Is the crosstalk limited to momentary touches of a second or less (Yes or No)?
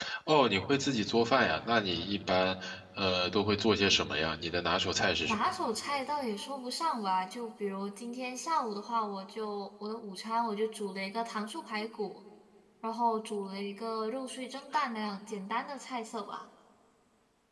Yes